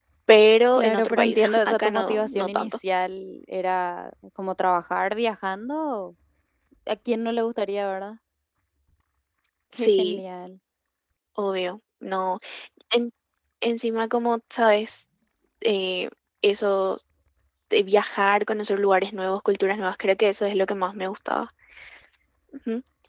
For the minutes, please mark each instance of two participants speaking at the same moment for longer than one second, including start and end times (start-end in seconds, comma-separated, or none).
0.8-2.8